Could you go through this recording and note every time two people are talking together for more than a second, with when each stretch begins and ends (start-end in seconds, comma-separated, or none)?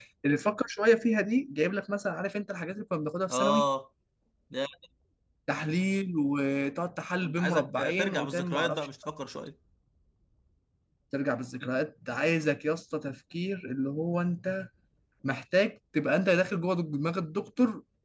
7.2-8.9